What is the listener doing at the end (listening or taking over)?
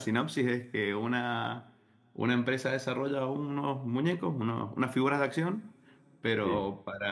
listening